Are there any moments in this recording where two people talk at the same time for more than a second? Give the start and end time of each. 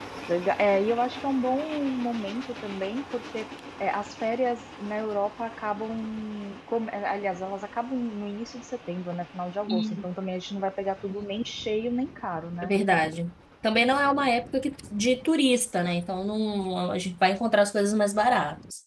none

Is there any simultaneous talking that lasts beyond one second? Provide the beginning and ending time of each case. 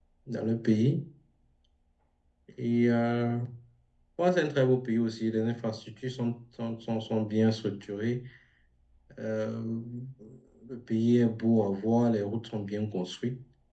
none

